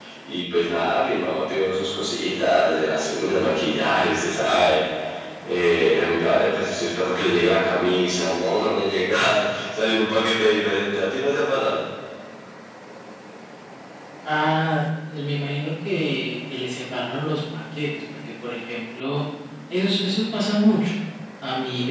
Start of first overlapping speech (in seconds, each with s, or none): none